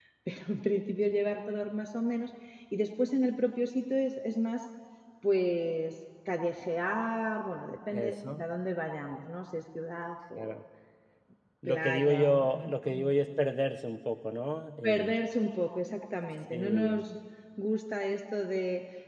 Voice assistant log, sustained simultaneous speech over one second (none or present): present